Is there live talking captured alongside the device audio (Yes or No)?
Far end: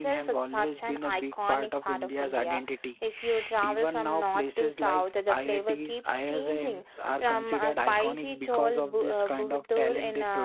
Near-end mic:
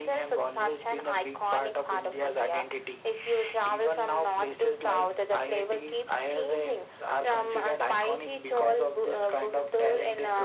No